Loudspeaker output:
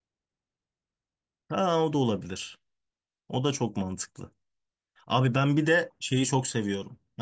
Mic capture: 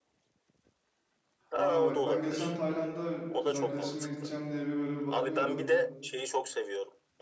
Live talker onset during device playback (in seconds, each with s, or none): 1.5 s